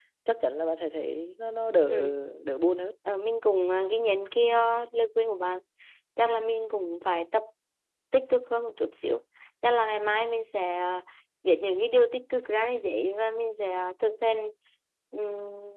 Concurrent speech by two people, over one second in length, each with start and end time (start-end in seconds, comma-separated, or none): none